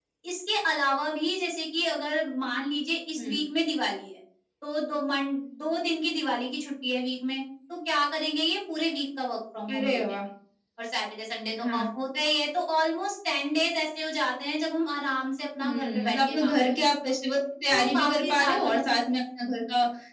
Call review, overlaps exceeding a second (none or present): present